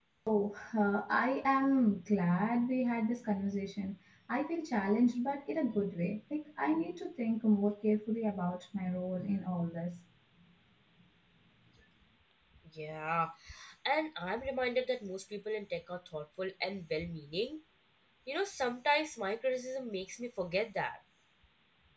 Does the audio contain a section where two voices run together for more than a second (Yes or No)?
No